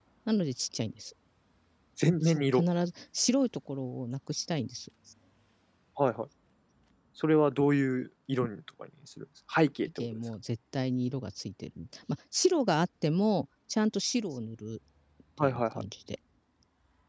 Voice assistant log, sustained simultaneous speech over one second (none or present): none